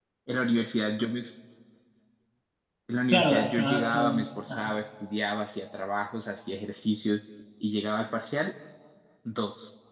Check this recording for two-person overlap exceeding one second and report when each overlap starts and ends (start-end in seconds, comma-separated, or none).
3.1-4.8